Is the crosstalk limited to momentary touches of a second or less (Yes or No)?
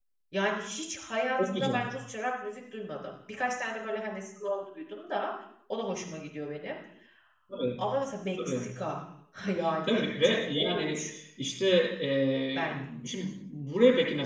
No